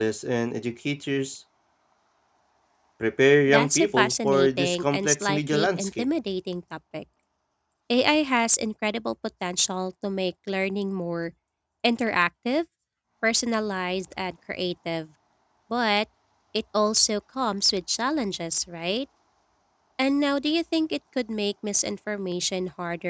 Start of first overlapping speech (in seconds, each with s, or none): 3.5 s